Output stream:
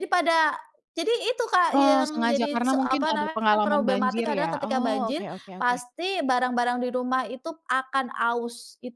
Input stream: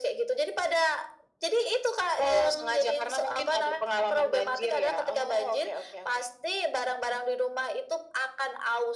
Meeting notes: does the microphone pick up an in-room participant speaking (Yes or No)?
No